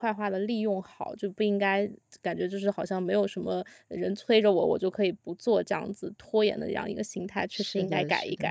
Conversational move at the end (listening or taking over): taking over